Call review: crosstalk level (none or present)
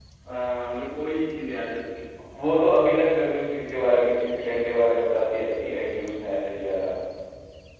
none